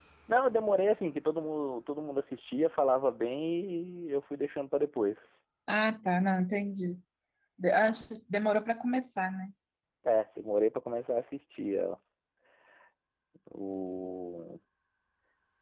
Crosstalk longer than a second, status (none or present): none